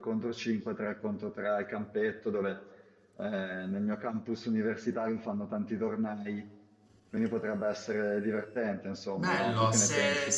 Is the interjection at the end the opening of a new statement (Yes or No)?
Yes